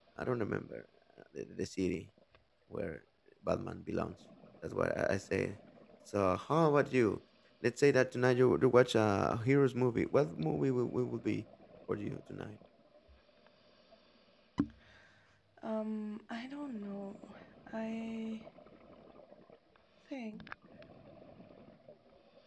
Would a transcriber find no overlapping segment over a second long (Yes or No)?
Yes